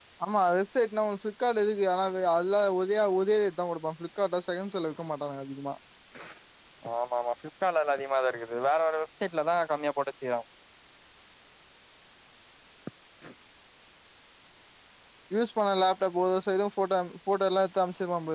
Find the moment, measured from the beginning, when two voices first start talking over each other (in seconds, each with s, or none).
none